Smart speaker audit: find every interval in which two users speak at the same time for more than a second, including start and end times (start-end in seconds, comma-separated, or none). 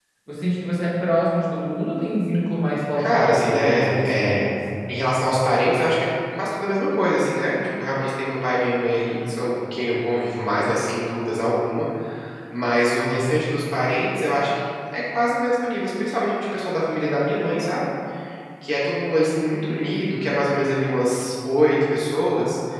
3.0-4.5